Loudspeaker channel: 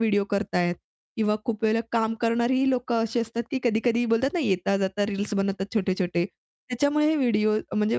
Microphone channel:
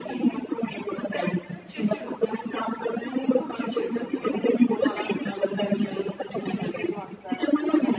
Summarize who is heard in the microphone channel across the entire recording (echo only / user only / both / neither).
both